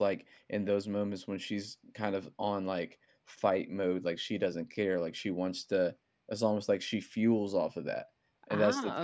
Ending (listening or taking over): listening